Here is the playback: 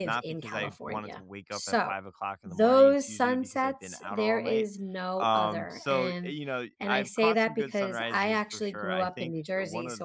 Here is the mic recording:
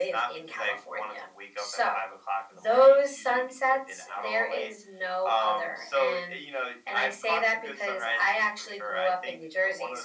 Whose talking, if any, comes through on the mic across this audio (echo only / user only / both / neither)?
echo only